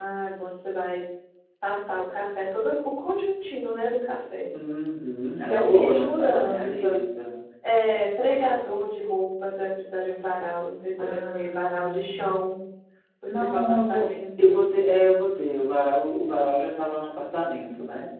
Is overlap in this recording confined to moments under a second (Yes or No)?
No